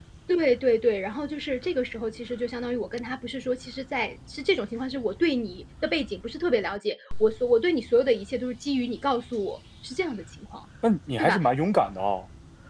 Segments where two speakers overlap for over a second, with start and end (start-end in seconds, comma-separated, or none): none